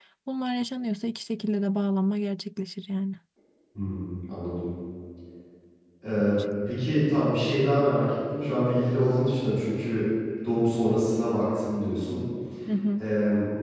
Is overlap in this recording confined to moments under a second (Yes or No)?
Yes